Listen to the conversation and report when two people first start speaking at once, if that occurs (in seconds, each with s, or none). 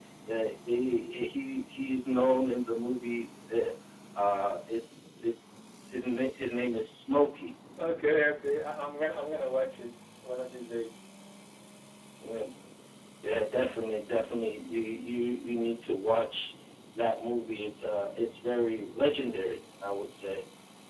none